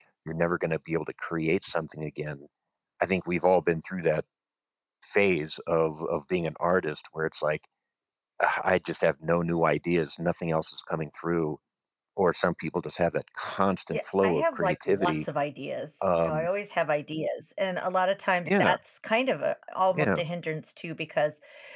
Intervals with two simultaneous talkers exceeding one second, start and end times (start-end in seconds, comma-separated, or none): 13.9-15.2